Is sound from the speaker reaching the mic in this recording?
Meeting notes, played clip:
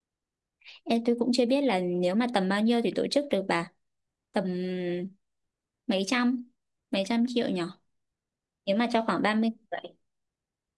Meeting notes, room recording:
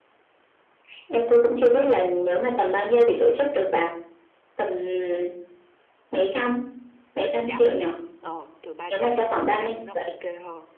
Yes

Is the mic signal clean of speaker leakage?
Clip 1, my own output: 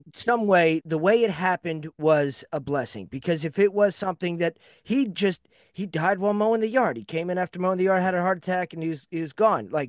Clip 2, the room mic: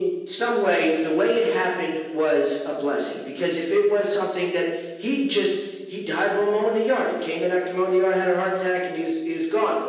No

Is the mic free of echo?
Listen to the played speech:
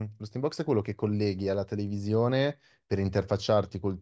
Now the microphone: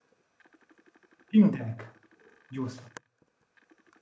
Yes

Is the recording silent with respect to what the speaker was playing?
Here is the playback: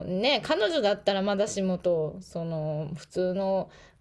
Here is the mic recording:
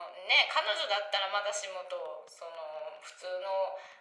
No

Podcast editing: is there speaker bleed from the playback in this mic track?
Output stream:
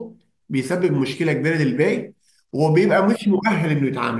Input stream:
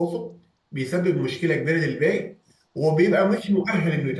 Yes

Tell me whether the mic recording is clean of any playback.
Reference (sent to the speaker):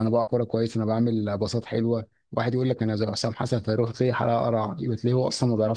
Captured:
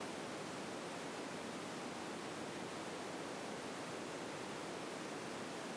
Yes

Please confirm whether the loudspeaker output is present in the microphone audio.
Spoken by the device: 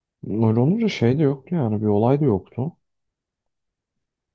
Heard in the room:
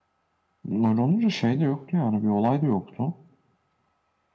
Yes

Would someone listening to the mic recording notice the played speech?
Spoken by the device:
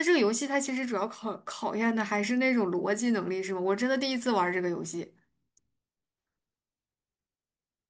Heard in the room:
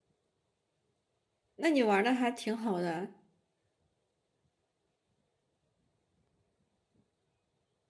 No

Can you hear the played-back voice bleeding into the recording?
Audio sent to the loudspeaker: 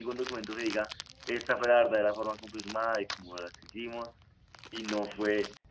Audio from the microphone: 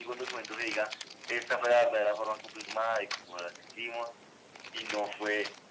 Yes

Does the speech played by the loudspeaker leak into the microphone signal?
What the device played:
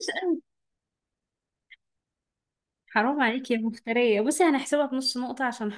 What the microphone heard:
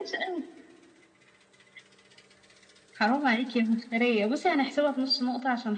Yes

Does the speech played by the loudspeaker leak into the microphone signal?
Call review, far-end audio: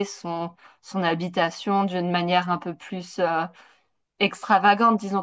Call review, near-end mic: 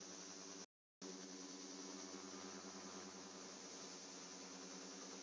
No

